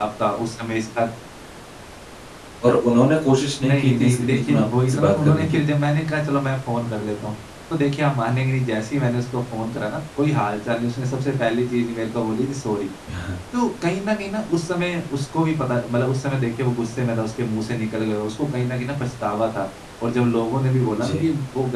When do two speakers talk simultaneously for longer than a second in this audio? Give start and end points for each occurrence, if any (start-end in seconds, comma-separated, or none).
3.6-5.6